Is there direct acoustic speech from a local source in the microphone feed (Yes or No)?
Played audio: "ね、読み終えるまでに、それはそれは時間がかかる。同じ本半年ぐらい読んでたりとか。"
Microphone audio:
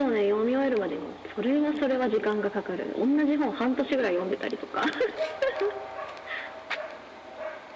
No